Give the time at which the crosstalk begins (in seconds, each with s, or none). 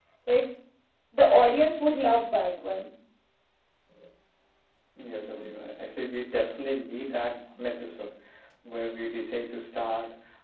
none